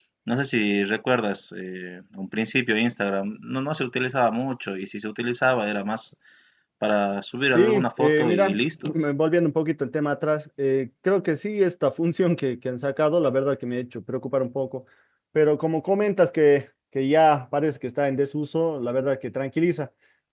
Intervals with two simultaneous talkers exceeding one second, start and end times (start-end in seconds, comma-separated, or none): 7.5-8.9